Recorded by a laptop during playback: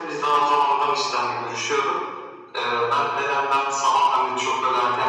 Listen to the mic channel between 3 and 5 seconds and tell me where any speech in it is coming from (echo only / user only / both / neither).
echo only